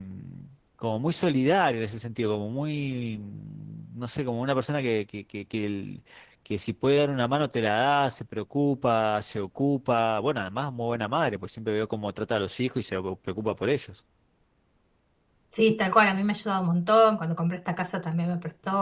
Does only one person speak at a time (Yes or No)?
Yes